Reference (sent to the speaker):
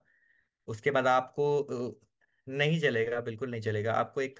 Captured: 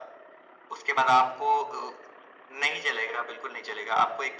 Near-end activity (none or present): none